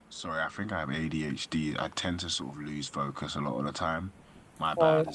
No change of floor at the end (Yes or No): Yes